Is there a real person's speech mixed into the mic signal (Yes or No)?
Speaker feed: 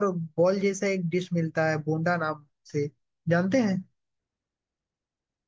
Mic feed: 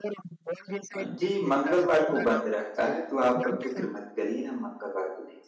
Yes